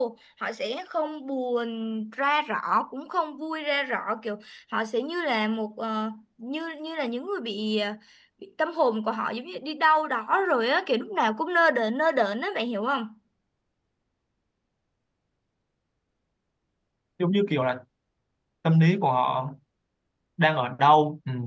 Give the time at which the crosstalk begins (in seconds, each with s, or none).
none